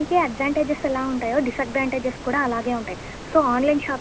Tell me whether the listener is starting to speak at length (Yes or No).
No